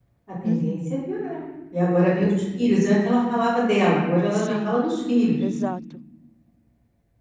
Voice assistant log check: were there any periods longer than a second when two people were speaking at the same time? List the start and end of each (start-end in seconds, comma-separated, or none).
none